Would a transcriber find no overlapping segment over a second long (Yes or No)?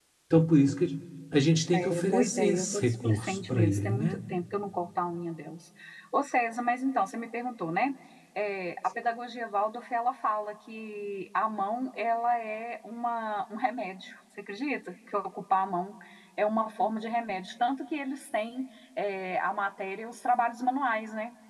No